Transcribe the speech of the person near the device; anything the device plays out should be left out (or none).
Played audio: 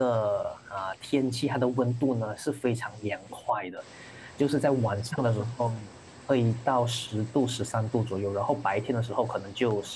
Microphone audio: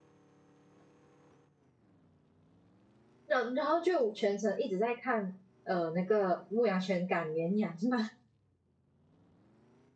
然然后就全程一直在看呃那个牧羊犬赶绵羊是吗？